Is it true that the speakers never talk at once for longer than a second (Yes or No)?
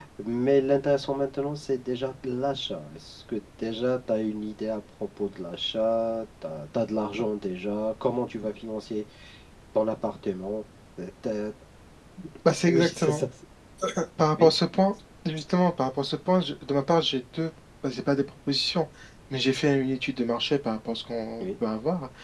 Yes